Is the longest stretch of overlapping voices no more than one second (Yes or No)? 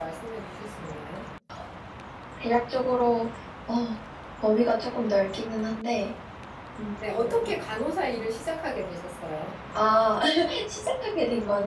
Yes